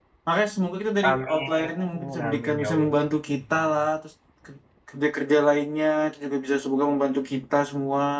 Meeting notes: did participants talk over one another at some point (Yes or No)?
Yes